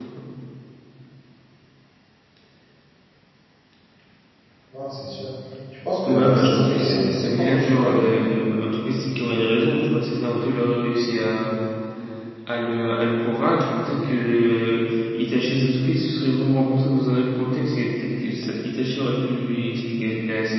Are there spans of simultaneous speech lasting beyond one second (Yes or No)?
Yes